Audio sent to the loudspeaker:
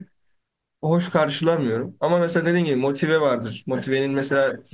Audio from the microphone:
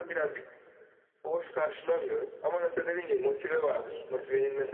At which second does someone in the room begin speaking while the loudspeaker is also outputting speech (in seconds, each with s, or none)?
3.6 s